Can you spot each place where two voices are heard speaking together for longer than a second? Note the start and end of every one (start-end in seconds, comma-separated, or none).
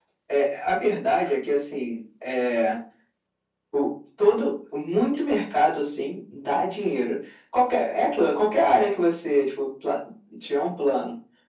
none